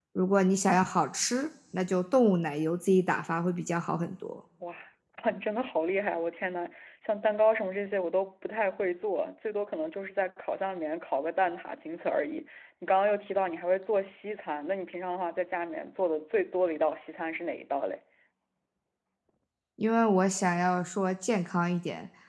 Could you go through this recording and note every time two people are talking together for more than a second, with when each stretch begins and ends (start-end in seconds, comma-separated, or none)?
none